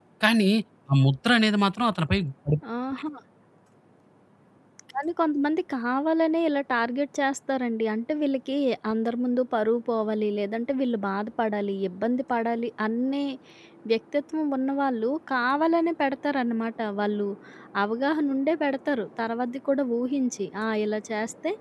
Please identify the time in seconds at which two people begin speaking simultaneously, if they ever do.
none

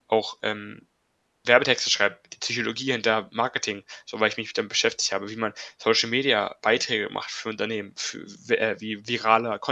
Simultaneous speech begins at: none

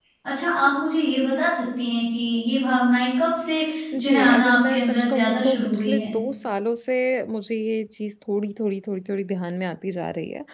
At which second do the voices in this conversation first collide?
4 s

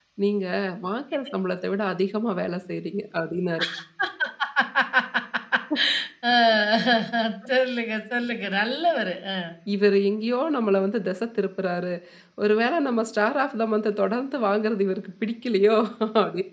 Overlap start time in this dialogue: none

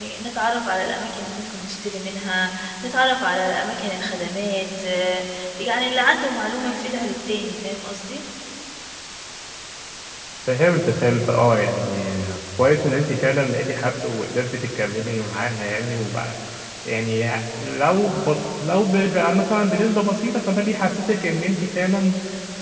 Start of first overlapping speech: none

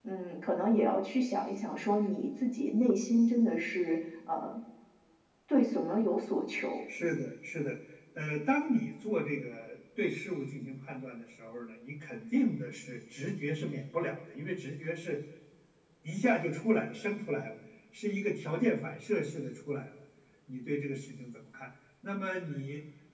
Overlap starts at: none

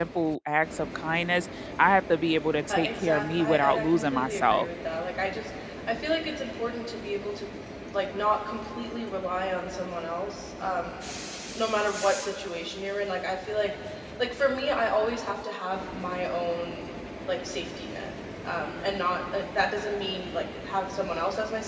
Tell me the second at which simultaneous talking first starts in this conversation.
3 s

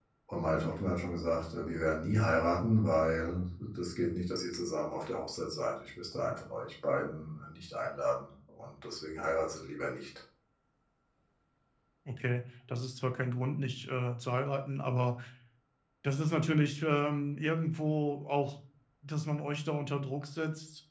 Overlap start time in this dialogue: none

